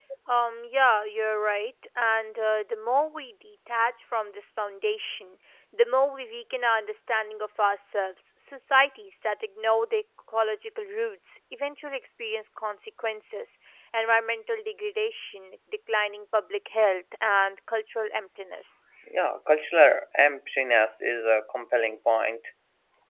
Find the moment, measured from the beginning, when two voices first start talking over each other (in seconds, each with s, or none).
none